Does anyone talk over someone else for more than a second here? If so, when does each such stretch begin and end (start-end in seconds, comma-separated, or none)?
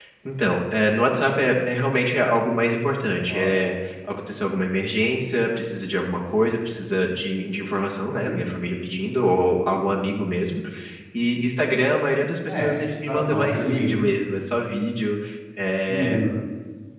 12.5-14.0